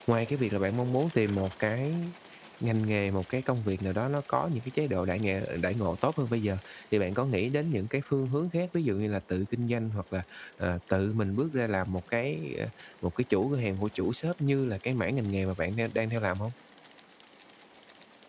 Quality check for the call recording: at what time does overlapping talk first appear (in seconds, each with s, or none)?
none